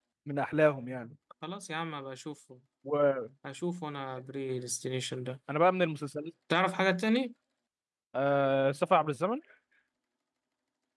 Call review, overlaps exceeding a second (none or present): none